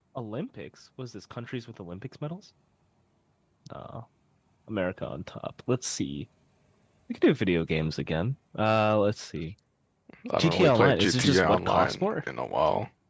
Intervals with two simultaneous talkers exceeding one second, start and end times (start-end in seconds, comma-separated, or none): 10.4-12.1